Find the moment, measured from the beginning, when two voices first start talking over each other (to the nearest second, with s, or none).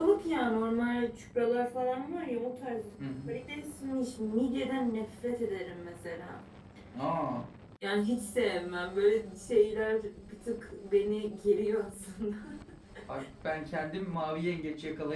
none